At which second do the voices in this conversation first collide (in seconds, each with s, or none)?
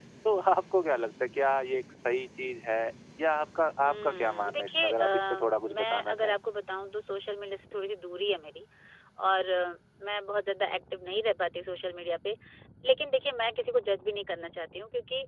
3.8 s